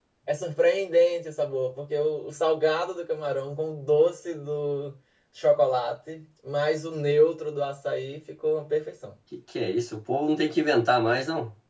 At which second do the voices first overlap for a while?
none

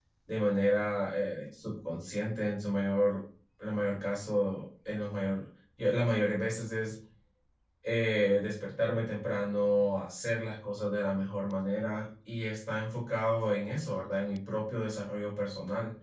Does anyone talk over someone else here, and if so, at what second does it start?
none

